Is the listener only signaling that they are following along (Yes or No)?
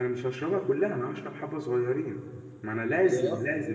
Yes